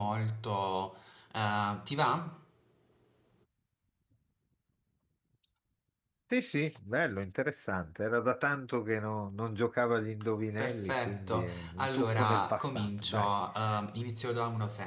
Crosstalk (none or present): present